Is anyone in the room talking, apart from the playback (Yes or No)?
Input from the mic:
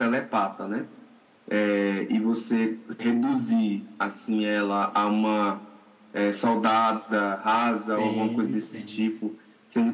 Yes